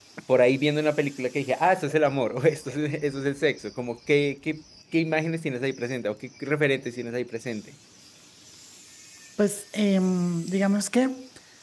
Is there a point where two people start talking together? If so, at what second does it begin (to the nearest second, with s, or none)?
none